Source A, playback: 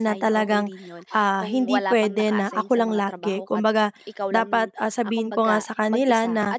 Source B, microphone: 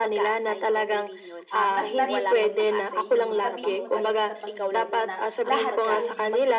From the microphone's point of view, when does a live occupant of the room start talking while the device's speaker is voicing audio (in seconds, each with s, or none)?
1.5 s